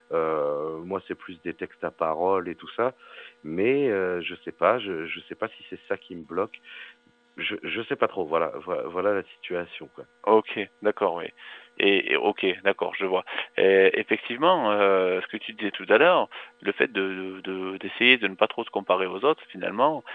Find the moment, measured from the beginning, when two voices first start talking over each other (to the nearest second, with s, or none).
none